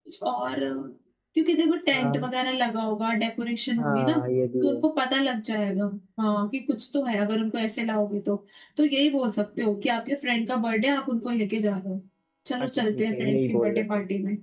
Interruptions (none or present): present